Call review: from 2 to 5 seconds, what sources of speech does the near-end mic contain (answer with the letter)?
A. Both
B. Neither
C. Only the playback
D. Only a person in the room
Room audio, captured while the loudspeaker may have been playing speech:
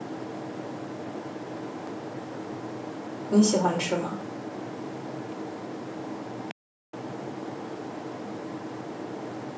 D